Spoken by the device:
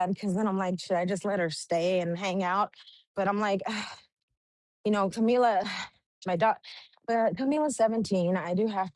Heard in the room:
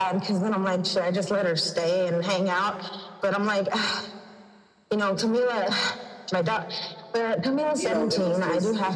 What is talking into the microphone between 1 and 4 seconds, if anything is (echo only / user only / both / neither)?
echo only